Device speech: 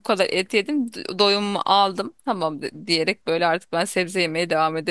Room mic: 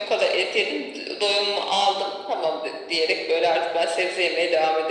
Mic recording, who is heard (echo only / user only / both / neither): echo only